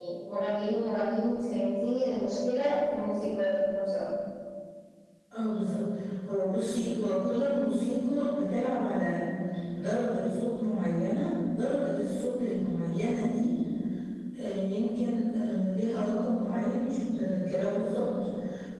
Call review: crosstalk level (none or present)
none